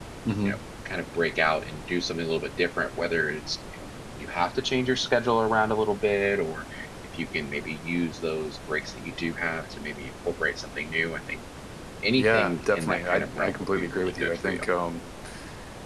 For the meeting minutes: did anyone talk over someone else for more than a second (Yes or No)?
Yes